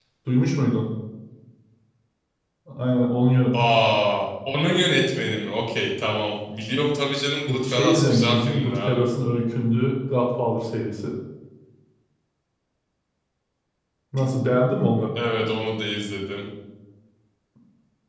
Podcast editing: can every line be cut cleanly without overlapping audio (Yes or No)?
No